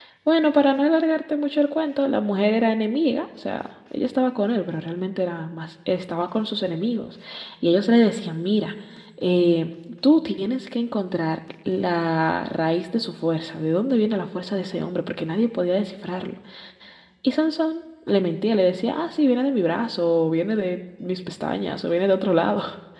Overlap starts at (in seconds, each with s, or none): none